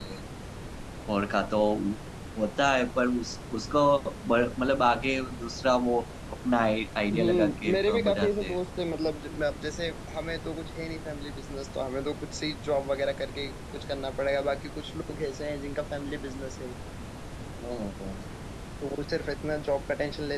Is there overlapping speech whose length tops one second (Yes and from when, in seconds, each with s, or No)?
Yes, from 7.1 s